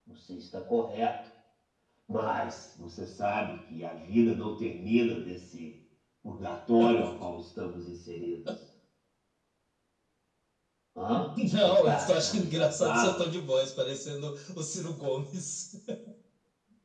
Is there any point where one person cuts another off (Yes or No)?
Yes